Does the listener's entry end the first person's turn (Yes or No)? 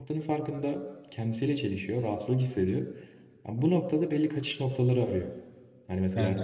No